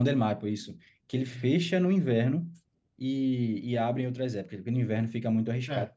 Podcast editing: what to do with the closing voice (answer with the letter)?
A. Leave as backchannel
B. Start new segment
B